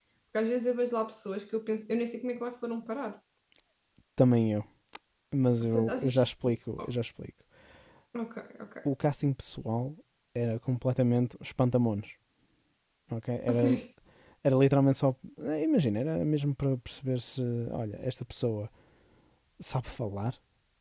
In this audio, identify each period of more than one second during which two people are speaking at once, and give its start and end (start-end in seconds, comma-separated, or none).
5.6-6.9